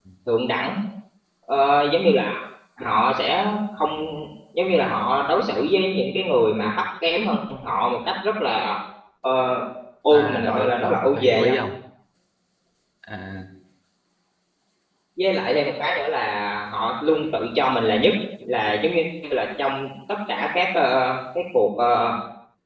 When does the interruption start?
10.1 s

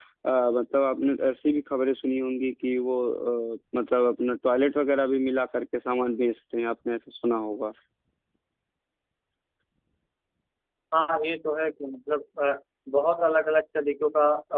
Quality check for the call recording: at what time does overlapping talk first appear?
none

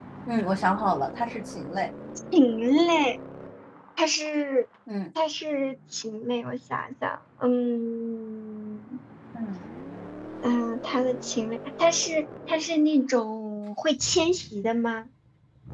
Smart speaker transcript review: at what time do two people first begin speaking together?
none

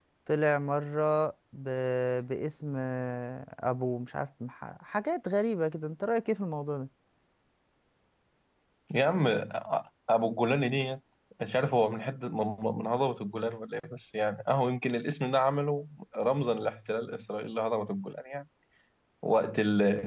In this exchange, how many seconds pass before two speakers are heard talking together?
none

